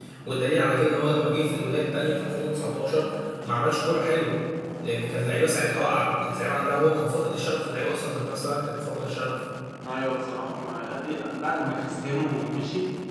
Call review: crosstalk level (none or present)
none